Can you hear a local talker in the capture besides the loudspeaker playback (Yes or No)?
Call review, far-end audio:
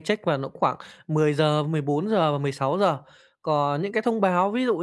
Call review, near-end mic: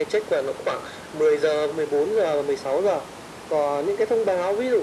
No